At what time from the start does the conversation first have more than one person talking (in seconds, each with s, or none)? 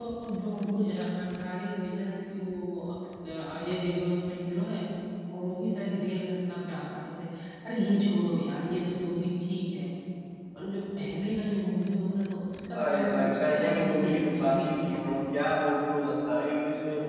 12.7 s